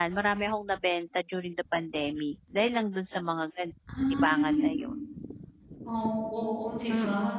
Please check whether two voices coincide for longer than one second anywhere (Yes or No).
No